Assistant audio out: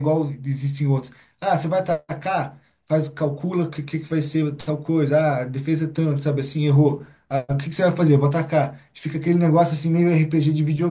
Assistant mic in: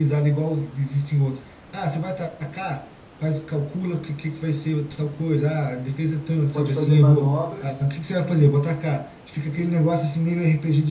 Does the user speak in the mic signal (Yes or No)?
Yes